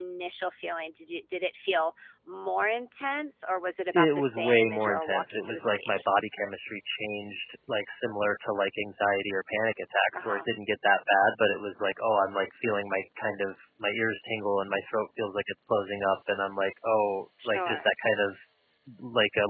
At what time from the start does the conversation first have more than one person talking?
3.9 s

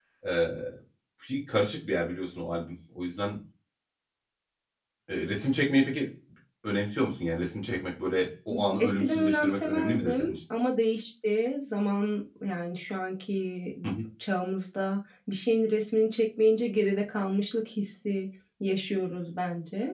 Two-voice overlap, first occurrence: 8.5 s

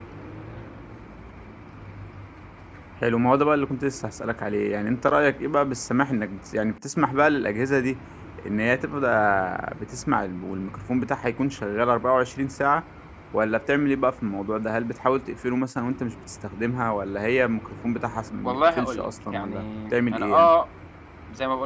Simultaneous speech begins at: 18.4 s

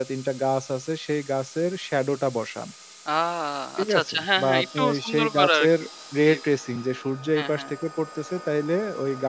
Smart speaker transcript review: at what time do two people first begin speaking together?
3.8 s

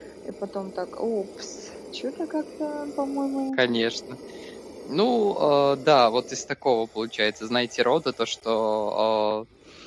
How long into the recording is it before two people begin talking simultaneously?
none

